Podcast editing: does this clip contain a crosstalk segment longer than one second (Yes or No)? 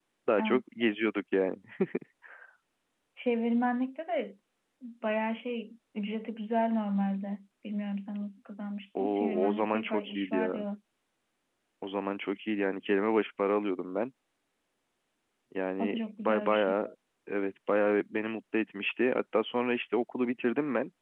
Yes